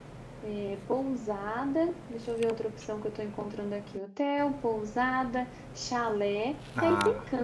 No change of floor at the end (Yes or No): Yes